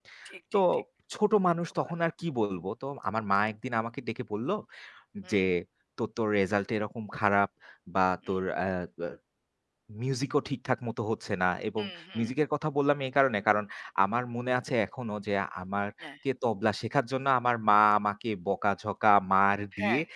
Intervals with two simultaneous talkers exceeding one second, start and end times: none

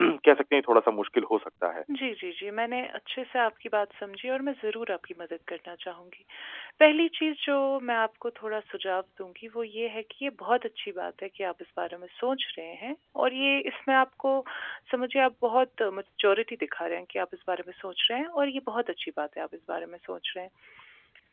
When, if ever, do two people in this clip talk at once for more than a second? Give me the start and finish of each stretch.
none

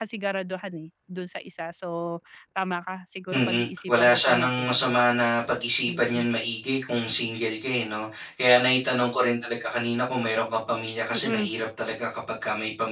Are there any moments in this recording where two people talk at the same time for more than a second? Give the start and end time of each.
3.3-4.9

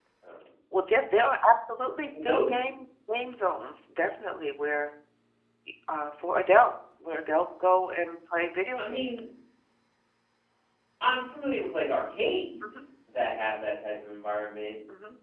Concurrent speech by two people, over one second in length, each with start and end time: none

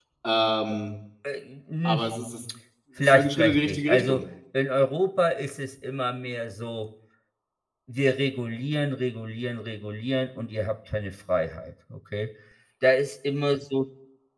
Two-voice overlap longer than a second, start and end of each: 3.0-4.2

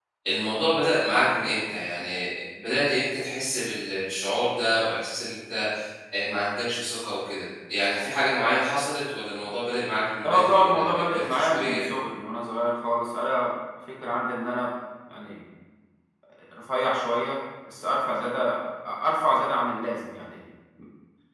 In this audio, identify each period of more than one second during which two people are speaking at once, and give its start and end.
10.3-11.8

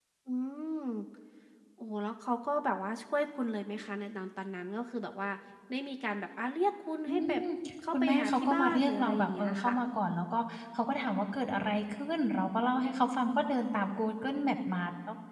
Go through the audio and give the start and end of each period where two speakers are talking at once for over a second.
7.9-9.7

